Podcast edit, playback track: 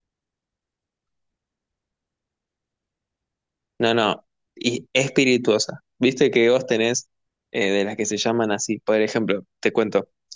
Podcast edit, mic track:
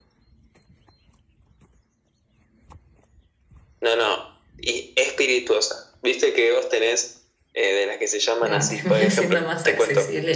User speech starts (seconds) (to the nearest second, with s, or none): 8 s